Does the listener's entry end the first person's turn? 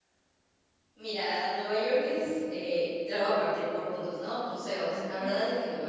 No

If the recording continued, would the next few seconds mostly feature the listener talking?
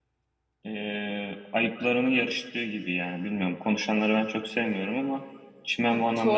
Yes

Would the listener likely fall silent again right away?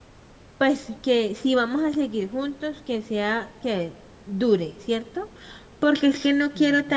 Yes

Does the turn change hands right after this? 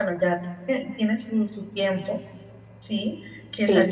No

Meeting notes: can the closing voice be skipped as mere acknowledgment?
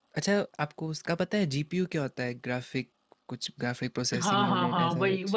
No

